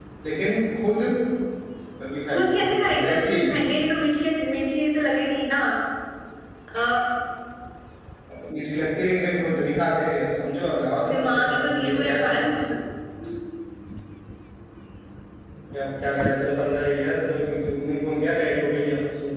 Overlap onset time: 2.3 s

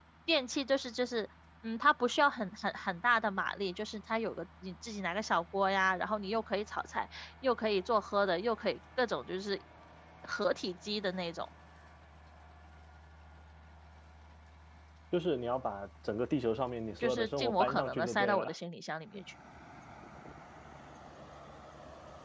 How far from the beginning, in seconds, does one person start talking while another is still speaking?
17.0 s

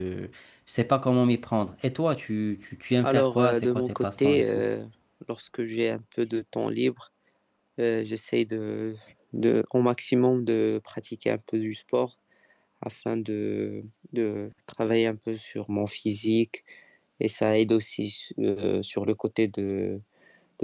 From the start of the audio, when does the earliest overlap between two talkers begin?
3.0 s

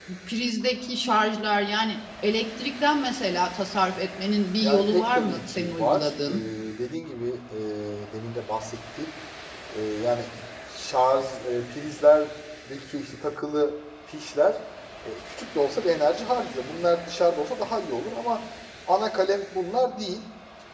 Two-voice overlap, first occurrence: 4.6 s

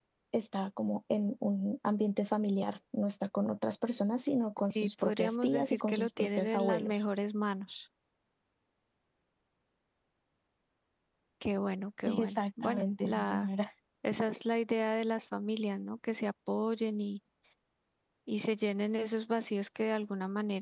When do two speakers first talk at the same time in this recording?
4.8 s

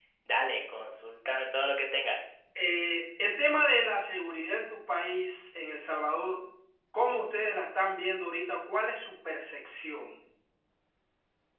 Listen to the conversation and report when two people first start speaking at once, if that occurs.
none

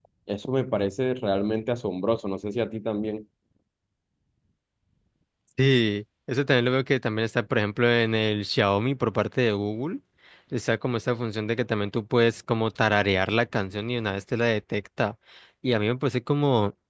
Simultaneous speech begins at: none

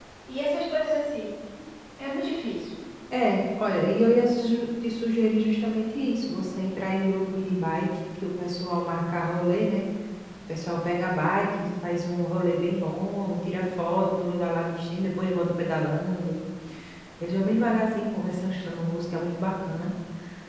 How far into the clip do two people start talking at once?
none

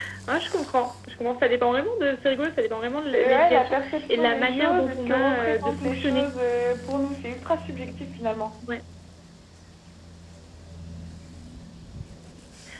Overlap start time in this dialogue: 3.1 s

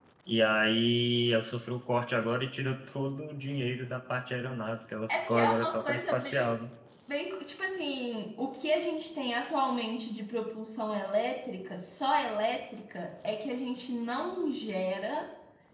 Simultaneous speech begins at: 5.1 s

